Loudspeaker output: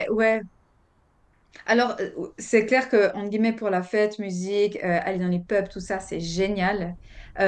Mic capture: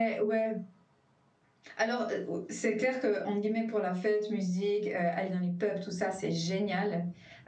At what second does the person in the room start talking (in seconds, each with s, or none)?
none